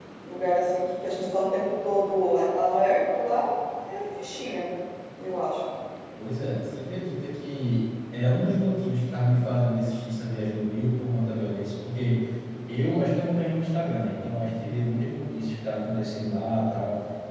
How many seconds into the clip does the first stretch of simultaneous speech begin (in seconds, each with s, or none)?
none